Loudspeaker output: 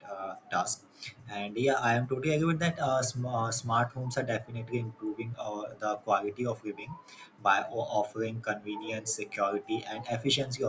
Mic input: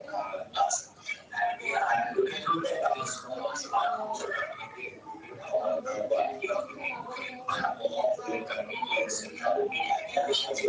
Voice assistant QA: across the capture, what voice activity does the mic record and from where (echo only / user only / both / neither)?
both